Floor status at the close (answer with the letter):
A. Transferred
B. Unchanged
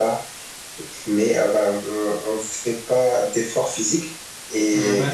B